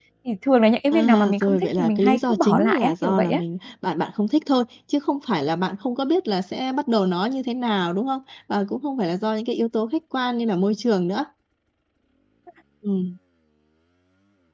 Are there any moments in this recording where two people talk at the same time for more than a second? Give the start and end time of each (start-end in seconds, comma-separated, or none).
0.9-3.4